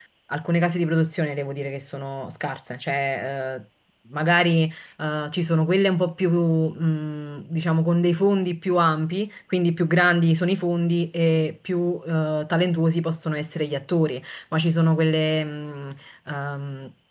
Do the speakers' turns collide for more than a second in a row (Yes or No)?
No